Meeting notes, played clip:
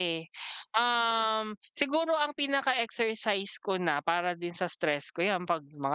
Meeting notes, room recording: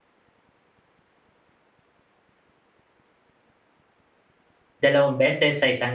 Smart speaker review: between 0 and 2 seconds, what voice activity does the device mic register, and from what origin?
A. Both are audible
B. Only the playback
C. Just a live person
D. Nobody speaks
D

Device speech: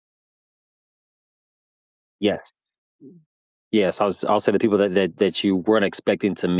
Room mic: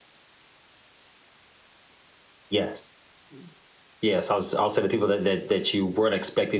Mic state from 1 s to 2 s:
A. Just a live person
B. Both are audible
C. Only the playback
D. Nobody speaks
D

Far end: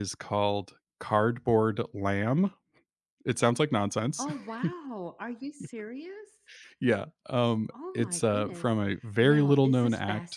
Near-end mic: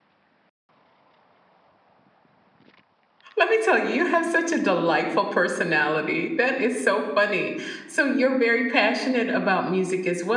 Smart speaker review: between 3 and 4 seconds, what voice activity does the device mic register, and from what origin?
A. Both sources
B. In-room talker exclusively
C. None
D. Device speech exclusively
B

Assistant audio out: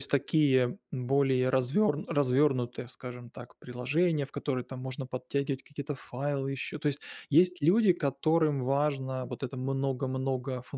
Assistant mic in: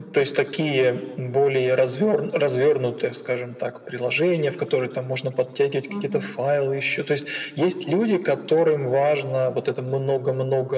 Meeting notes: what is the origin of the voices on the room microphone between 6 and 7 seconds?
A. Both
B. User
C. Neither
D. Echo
A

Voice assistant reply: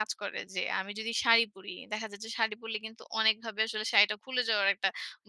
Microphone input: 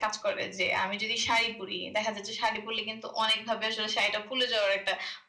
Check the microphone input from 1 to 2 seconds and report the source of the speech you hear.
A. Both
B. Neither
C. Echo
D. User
C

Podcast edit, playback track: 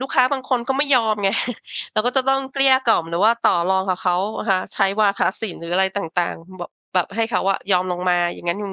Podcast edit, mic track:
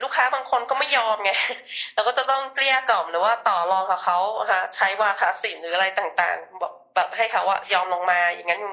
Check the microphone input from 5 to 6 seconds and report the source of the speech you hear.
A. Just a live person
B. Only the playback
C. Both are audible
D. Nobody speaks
B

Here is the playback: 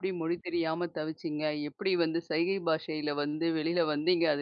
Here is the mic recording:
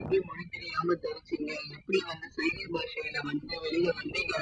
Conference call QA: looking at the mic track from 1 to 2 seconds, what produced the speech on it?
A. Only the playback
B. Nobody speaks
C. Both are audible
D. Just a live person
A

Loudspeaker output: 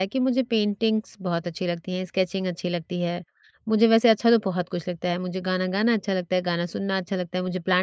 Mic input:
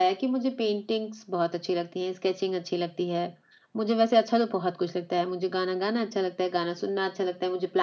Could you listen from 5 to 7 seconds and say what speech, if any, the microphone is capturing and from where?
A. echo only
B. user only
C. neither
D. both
A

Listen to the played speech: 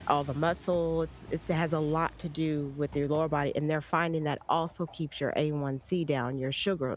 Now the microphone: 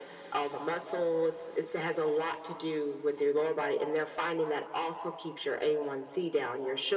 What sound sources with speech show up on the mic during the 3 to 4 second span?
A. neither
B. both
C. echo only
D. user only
C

